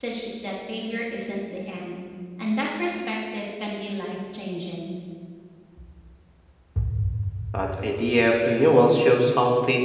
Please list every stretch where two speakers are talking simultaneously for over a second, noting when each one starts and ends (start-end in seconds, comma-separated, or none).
none